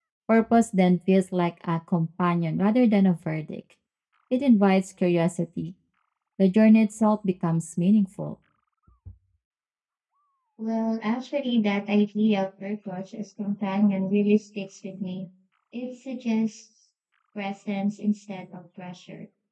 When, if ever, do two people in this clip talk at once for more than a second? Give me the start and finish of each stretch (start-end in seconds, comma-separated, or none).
none